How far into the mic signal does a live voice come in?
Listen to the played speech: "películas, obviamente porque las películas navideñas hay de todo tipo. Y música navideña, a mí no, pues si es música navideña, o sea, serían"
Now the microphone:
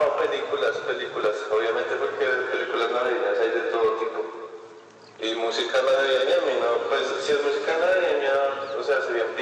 none

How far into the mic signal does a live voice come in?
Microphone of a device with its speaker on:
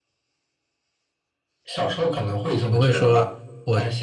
2.6 s

